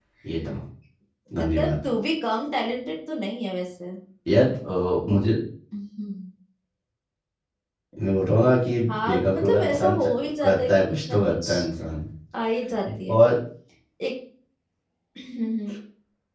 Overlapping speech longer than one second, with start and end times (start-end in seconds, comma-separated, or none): 8.9-11.6